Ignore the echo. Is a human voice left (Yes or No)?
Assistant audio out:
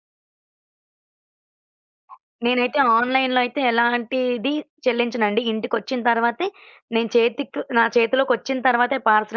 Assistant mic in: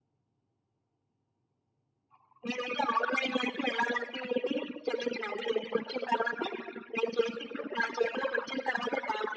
No